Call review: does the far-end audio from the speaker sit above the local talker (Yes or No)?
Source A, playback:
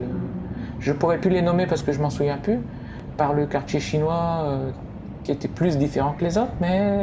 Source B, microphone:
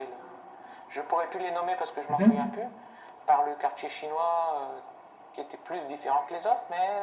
No